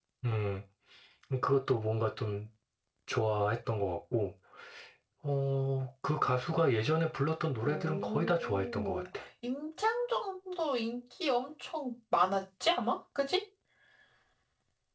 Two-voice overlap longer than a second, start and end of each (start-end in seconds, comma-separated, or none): 7.7-9.1